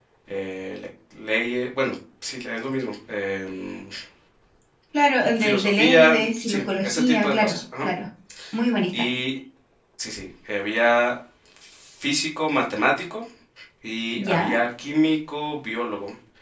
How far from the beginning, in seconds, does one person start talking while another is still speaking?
5.4 s

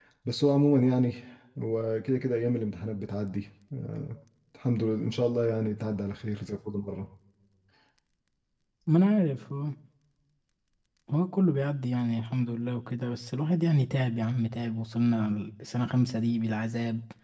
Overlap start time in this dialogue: none

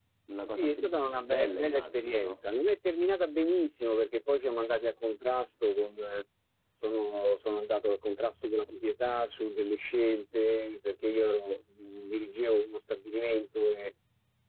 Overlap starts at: 0.6 s

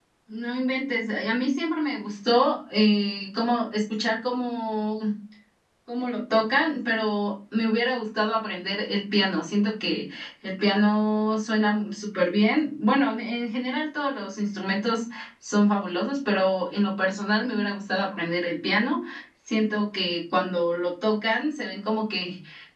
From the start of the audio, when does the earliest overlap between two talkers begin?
none

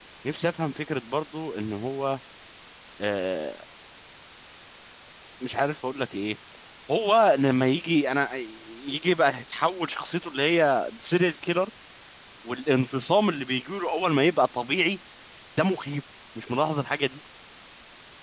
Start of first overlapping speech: none

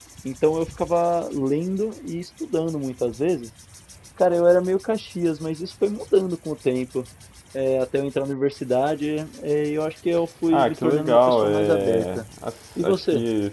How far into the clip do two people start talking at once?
10.5 s

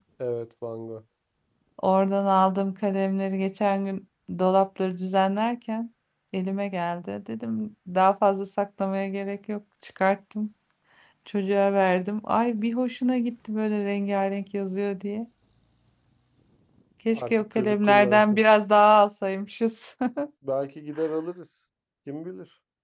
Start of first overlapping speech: 17.1 s

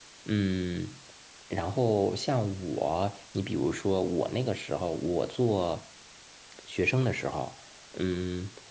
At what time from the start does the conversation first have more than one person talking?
none

